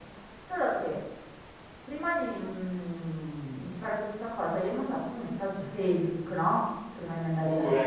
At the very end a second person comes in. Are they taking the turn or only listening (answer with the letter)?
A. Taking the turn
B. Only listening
B